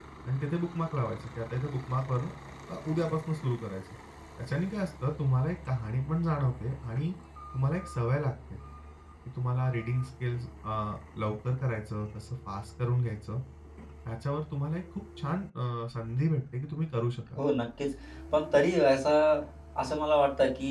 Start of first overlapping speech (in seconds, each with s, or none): none